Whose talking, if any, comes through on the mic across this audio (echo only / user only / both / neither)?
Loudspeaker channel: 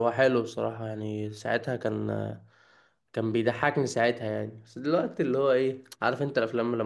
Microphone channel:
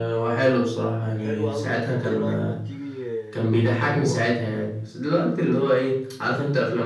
both